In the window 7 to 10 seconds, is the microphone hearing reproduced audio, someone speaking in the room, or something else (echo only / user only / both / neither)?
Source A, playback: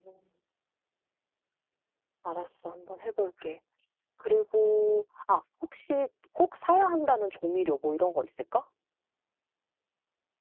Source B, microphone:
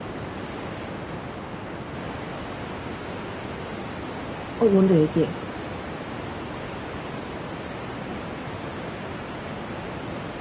neither